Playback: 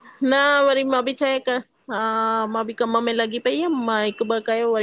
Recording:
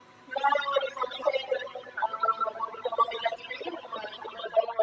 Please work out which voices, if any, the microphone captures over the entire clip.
echo only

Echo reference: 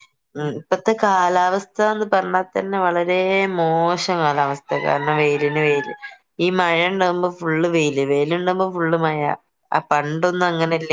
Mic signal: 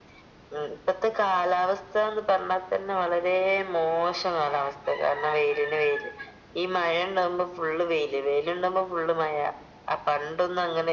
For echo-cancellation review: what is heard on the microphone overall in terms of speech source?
echo only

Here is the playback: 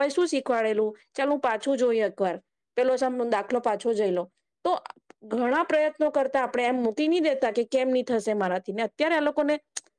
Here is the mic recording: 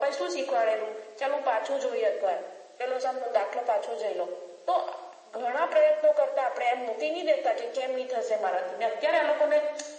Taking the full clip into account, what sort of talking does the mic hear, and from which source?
echo only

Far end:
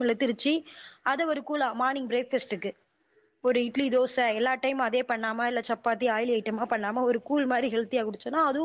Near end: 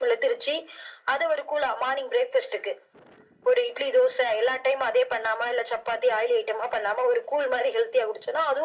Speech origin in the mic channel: echo only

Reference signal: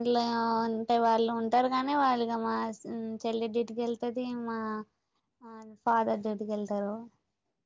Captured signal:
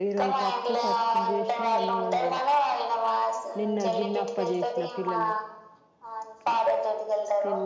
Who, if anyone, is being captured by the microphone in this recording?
both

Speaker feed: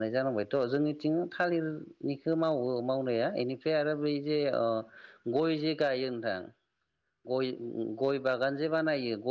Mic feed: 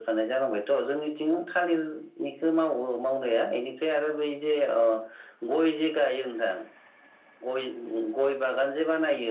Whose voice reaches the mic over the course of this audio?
echo only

